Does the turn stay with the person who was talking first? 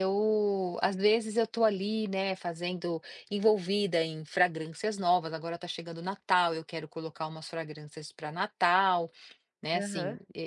Yes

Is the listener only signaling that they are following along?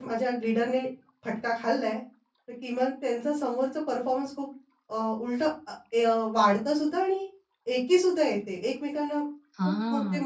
No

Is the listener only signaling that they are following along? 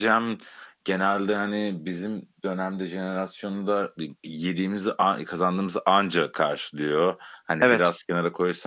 Yes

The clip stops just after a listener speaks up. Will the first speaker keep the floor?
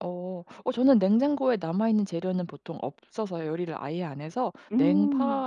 Yes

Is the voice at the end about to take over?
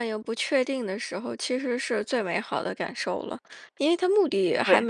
No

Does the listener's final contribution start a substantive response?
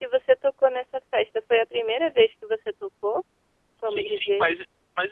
Yes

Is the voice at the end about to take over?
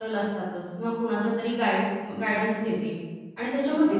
No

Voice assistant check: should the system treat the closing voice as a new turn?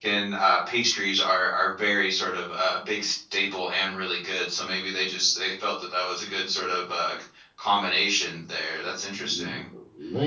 Yes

